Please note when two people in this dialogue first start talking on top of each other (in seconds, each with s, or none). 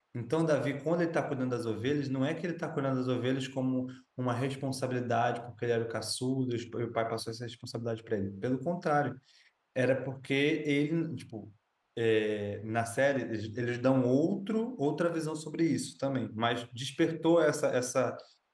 none